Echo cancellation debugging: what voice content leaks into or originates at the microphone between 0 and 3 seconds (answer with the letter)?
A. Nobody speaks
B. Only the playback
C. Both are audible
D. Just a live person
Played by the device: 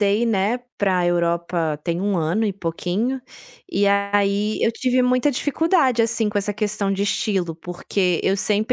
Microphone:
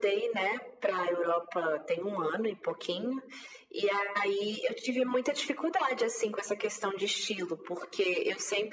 B